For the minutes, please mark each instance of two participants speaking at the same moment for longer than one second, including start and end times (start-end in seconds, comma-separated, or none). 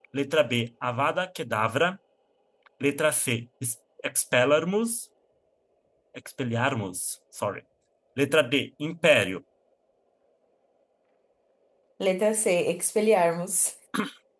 none